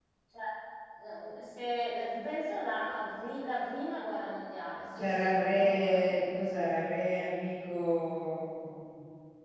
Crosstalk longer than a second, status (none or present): present